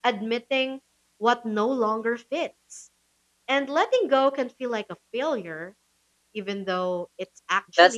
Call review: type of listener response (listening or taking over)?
taking over